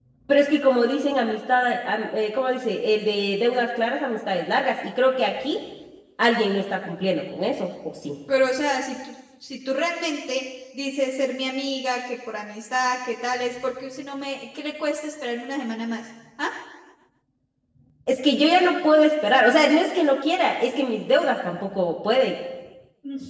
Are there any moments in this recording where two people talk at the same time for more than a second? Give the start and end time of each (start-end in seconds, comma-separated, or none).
none